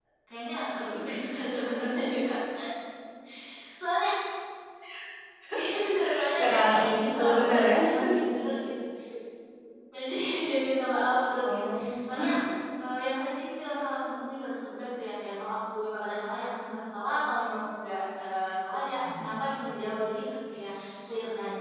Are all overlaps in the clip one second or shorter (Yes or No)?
No